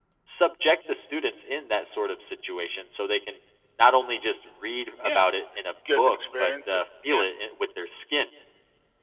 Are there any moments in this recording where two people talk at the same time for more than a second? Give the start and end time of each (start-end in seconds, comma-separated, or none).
6.0-7.2